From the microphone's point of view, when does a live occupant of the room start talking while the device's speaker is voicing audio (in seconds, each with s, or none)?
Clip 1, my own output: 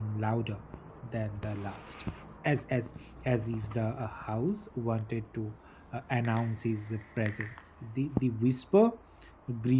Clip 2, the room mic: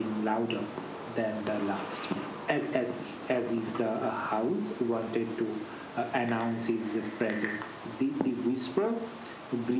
none